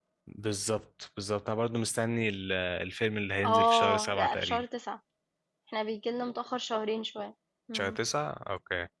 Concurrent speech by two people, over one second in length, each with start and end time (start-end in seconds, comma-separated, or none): 3.4-4.6